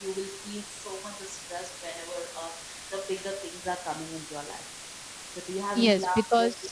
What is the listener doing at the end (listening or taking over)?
taking over